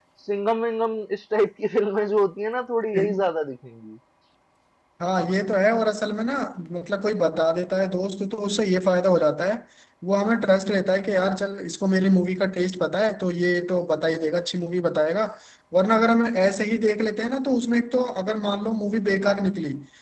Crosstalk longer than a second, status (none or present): none